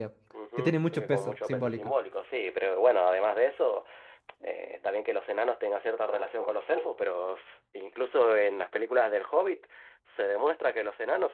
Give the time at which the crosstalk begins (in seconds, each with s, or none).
0.6 s